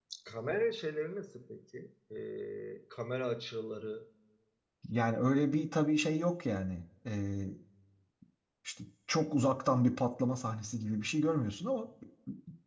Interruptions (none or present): none